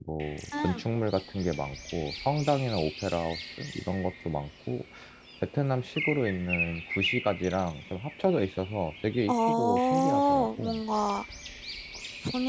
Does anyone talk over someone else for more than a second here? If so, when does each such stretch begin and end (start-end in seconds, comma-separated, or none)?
9.3-10.8